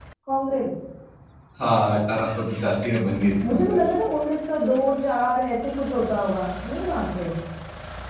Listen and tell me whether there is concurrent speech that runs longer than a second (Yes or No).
No